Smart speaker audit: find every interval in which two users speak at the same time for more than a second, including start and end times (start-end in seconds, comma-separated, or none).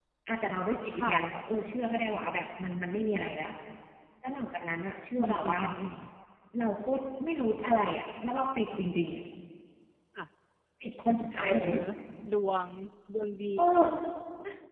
none